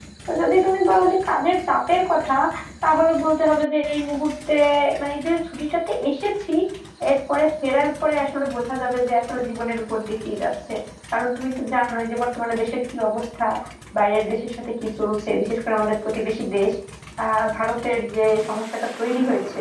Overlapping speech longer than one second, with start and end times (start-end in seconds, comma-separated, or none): none